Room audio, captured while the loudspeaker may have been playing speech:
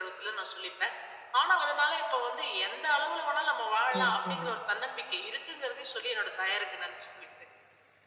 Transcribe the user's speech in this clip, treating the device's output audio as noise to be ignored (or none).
சரி, சரி.